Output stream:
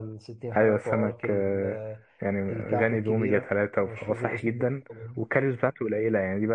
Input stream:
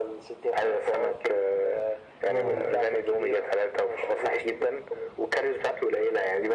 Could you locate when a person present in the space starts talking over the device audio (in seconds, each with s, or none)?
2.3 s